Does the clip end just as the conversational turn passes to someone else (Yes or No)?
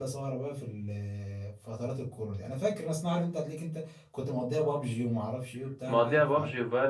Yes